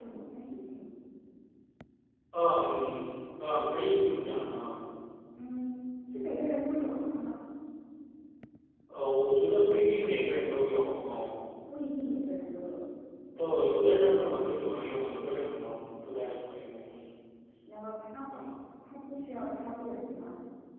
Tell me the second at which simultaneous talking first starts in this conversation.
none

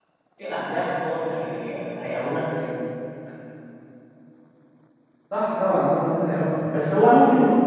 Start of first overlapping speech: none

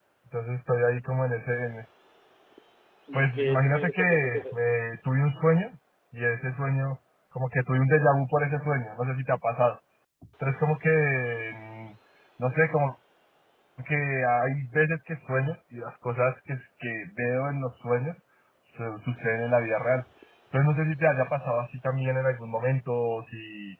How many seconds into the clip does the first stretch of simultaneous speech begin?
3 s

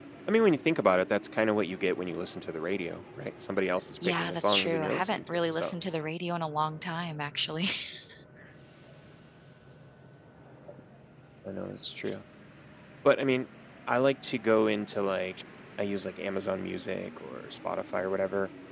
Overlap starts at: 4 s

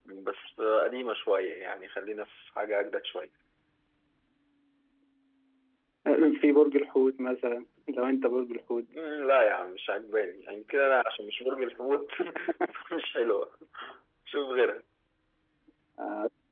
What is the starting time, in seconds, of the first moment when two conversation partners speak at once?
none

